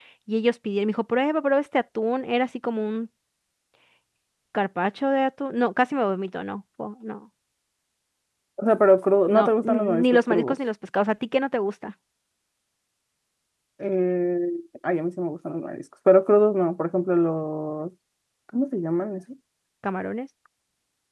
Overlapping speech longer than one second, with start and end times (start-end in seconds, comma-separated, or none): 9.3-10.6